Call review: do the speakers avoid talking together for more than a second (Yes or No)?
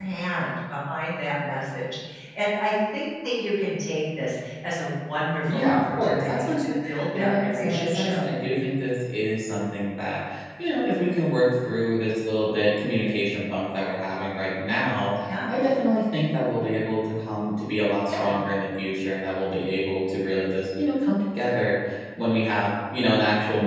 No